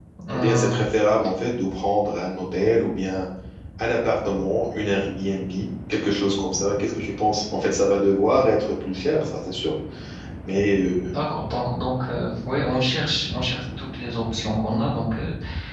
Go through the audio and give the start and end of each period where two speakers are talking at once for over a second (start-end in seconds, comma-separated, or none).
none